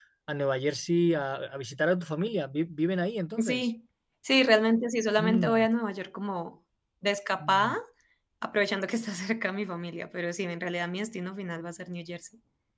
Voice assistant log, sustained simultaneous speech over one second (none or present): none